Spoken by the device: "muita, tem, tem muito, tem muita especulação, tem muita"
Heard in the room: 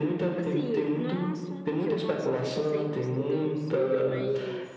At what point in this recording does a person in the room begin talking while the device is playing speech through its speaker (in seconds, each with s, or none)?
0.4 s